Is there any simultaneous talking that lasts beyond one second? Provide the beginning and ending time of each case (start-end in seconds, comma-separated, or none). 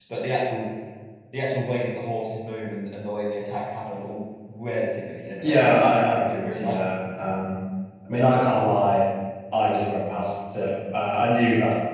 5.4-6.8